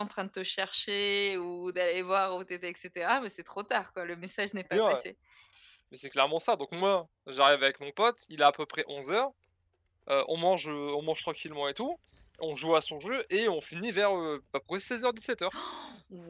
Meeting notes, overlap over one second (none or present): none